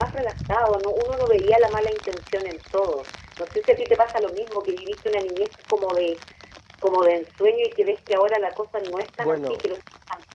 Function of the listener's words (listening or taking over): listening